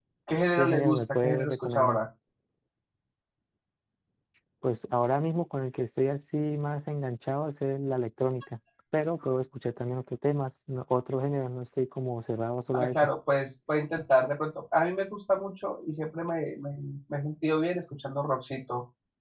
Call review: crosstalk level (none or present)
present